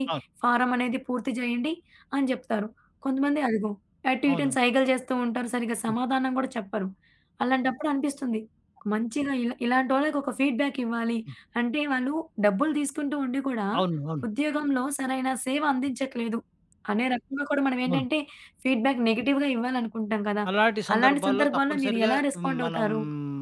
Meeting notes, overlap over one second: present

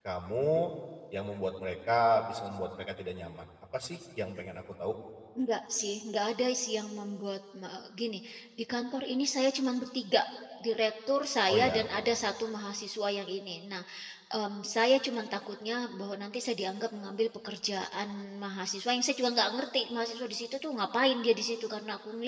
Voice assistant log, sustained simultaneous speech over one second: none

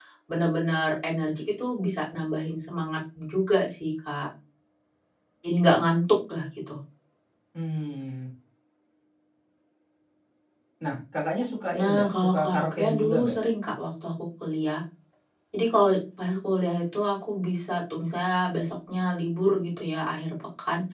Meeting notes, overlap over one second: present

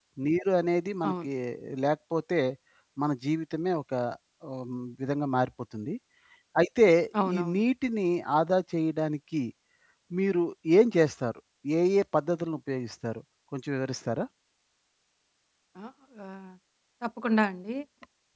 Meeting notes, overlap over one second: none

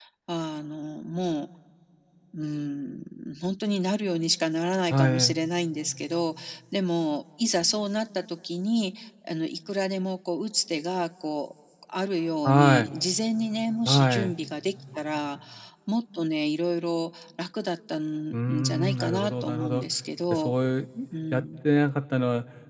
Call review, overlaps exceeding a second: present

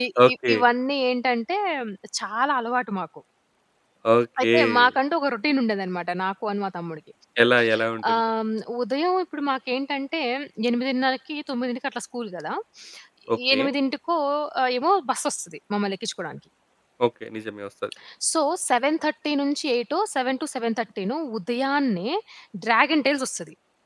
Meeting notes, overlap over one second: none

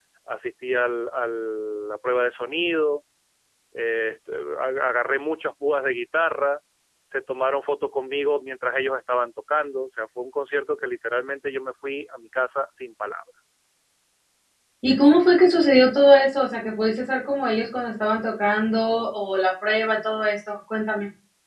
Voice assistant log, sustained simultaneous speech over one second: none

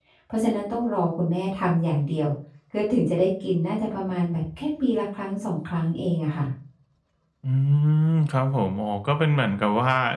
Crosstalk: none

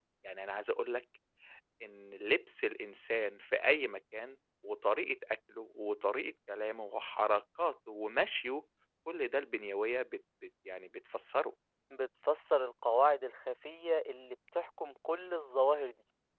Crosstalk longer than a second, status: none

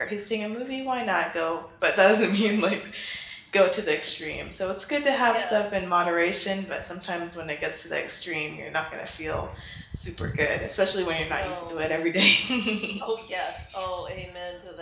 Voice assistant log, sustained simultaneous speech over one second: none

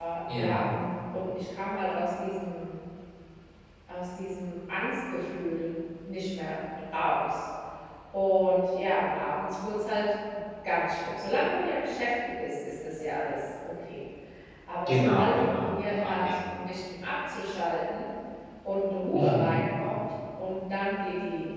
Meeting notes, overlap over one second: present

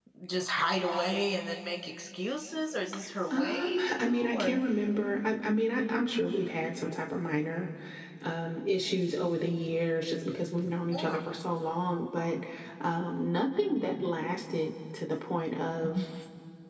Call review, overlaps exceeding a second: present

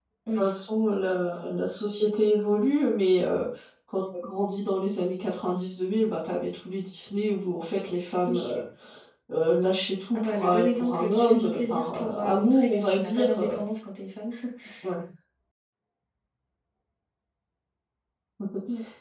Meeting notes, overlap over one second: present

